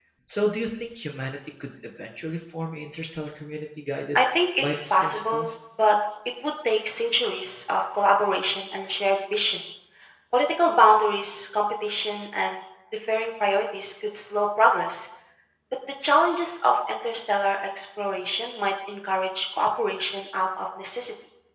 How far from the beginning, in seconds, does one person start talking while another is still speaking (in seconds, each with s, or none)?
4.2 s